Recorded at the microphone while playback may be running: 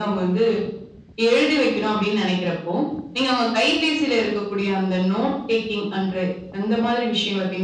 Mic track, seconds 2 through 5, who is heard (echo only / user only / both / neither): echo only